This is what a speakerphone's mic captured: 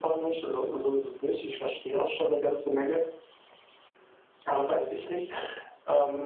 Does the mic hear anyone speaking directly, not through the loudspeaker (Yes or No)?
No